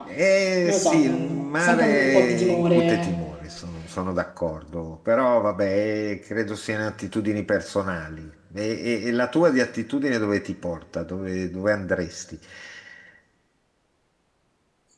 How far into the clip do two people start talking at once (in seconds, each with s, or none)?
0.7 s